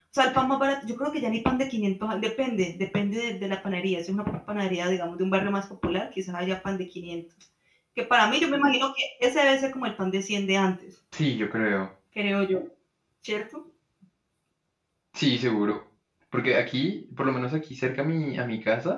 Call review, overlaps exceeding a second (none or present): none